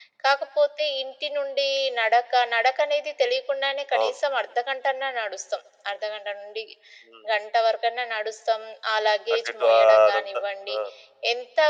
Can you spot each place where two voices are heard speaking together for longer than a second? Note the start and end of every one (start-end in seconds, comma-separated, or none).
9.3-10.8